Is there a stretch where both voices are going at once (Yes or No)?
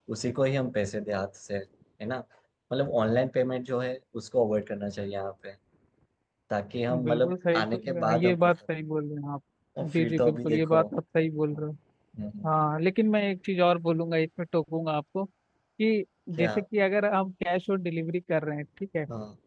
Yes